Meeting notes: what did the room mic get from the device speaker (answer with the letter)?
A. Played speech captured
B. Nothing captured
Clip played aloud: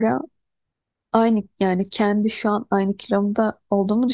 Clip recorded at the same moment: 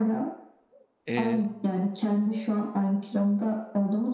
A